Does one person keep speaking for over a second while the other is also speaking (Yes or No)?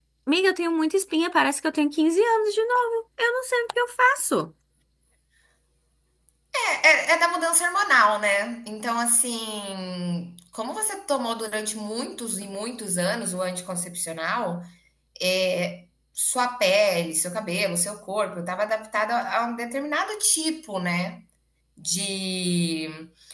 No